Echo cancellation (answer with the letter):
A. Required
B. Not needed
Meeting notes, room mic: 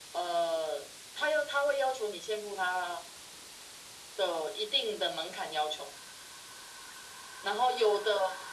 A